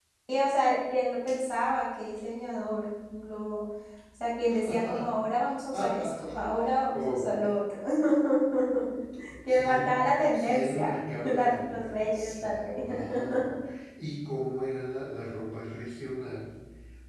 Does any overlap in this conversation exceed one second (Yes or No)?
Yes